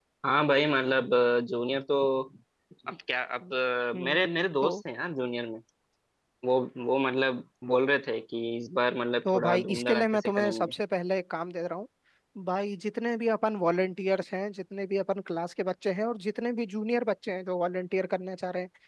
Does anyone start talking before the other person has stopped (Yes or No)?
Yes